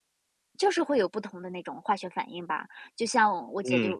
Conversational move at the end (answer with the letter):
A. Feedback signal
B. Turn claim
A